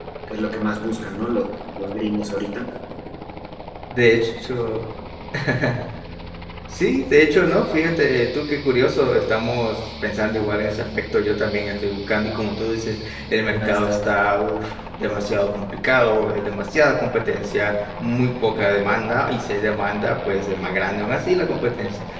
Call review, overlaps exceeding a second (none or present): none